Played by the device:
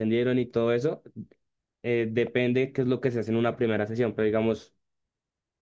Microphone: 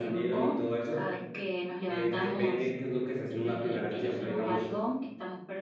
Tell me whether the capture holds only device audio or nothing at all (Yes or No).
No